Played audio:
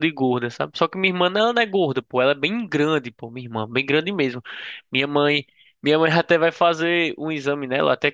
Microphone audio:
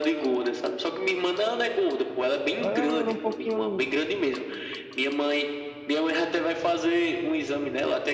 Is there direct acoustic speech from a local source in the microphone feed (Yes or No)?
Yes